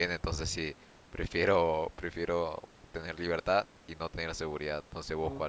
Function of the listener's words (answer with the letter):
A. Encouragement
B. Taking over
B